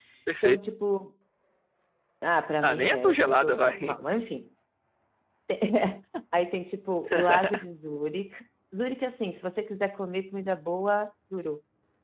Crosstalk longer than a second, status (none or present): present